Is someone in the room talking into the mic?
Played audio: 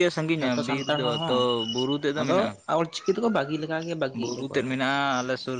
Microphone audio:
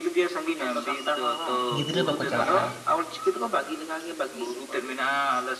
Yes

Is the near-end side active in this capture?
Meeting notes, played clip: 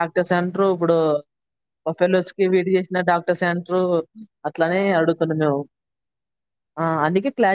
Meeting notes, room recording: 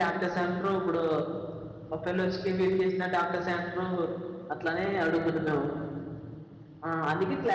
No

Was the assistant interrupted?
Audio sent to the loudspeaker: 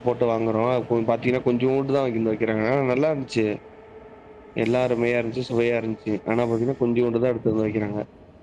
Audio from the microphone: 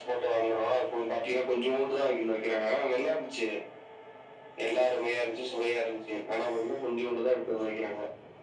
No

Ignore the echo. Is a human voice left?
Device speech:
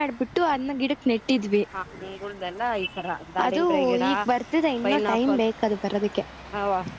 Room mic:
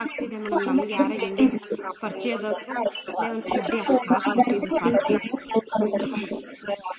Yes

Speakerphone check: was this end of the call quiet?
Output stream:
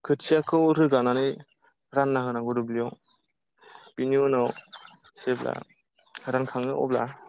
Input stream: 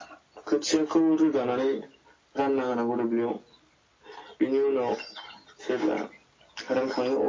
Yes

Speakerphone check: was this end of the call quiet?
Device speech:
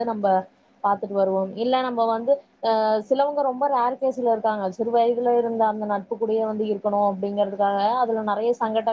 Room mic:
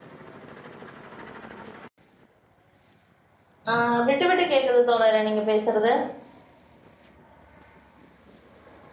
No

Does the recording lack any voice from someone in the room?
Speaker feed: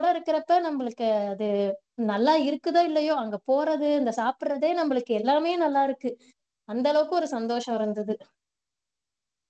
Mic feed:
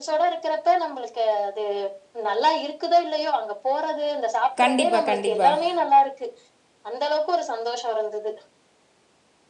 No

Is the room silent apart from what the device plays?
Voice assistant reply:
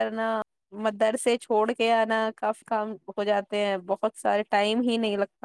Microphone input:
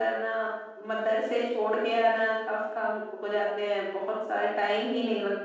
Yes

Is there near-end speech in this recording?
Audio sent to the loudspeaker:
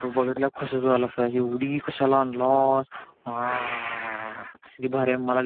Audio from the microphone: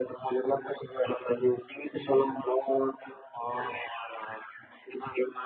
No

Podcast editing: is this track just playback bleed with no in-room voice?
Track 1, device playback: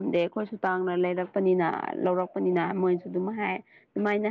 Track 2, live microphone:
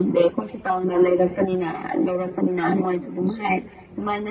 No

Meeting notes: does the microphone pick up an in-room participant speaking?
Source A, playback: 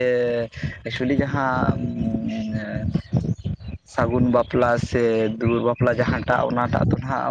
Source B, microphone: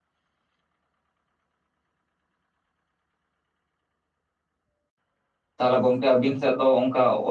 Yes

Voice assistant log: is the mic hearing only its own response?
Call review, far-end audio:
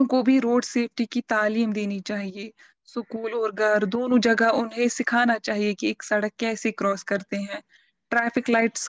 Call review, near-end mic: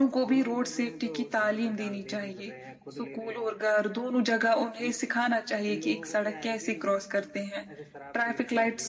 No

